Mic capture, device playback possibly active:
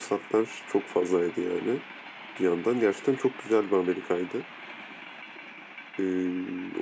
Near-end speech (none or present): present